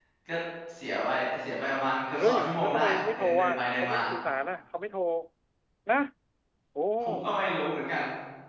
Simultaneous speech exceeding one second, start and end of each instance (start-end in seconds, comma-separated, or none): 2.2-4.0